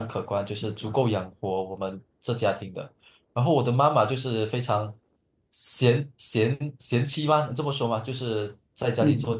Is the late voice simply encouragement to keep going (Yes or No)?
Yes